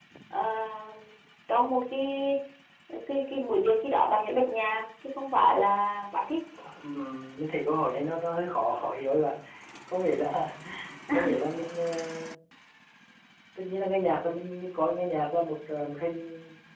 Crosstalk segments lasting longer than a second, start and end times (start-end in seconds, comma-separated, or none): none